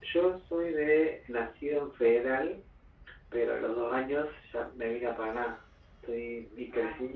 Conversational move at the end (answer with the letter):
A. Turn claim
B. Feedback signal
B